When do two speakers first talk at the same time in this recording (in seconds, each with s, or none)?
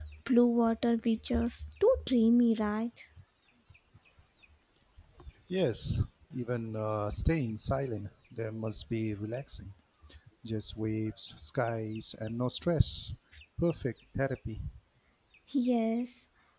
none